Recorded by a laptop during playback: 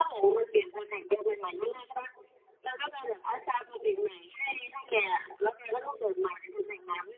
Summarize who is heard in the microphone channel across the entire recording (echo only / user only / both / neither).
echo only